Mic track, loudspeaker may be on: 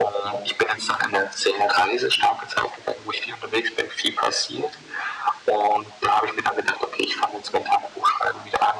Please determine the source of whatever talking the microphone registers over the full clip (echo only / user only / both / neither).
echo only